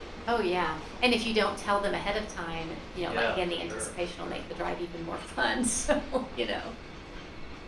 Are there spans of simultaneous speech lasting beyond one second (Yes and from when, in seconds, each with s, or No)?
Yes, from 2.9 s